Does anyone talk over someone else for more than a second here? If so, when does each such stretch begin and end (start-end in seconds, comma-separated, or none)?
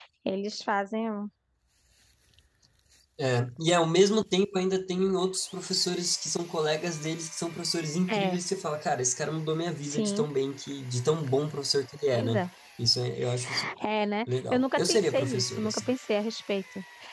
14.5-15.9